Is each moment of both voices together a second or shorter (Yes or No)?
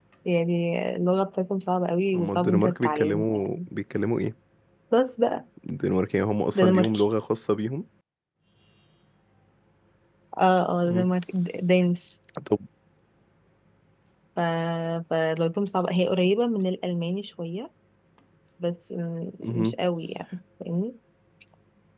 No